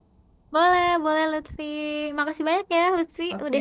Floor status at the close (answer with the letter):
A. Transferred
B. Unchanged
A